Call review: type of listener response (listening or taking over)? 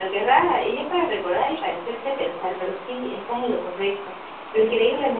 listening